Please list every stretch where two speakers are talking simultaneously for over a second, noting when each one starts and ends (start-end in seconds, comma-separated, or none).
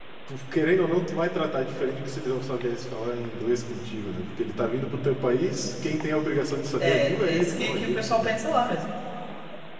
6.8-8.3